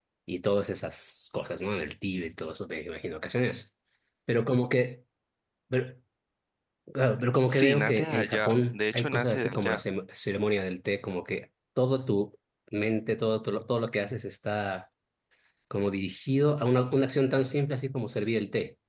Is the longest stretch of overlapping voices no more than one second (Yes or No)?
No